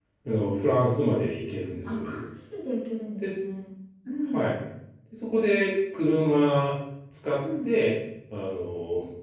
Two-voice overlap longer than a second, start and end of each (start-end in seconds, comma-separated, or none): none